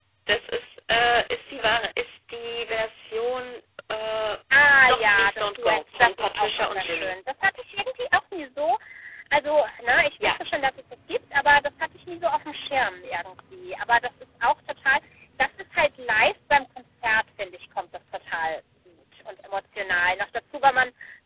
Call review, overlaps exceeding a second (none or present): present